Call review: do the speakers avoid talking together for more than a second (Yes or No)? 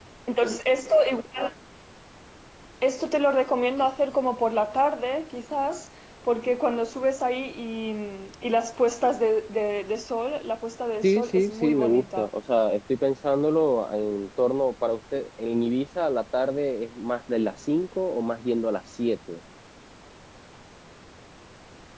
No